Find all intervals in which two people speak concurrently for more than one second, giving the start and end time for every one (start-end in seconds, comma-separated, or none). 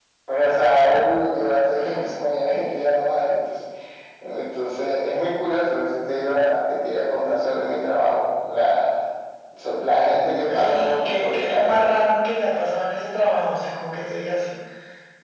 10.5-11.8